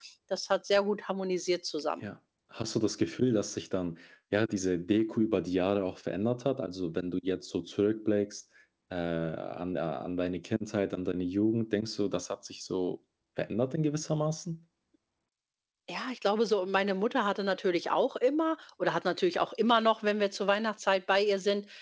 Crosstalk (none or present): none